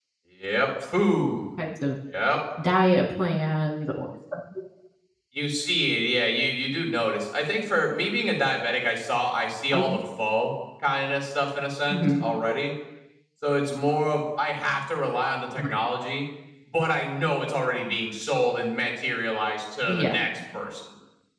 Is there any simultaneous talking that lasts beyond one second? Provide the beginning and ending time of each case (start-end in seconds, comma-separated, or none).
none